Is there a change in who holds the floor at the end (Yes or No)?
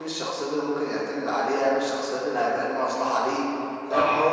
Yes